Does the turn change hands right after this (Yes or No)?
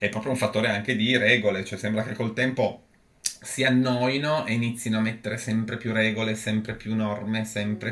No